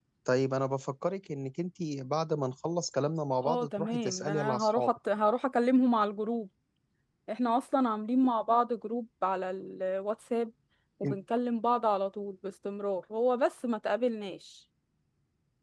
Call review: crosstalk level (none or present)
present